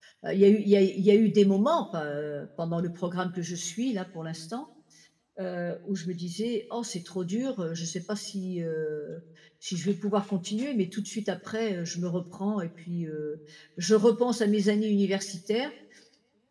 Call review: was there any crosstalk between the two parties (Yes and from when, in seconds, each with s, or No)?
No